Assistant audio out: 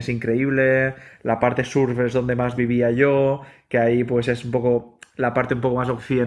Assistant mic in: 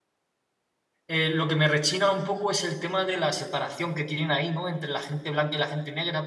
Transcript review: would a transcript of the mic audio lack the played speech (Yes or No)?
Yes